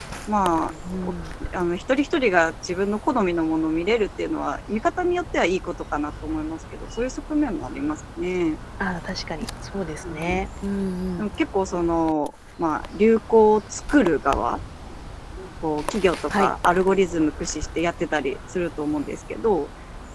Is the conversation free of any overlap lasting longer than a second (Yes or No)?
Yes